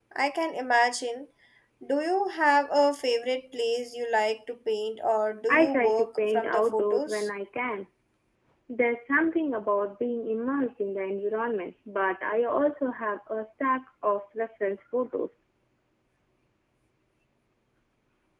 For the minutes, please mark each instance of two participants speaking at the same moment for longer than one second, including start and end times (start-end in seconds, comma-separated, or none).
5.5-7.3